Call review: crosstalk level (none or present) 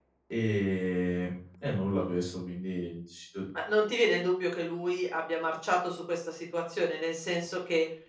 none